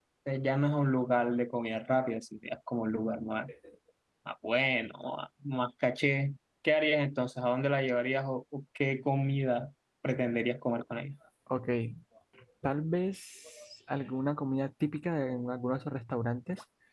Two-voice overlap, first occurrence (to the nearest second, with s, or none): none